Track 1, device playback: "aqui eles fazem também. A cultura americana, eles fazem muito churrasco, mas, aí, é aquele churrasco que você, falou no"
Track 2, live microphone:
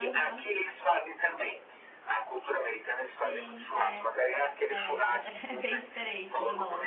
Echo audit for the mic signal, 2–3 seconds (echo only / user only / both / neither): echo only